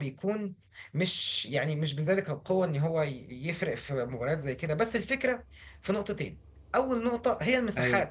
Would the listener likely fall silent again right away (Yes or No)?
Yes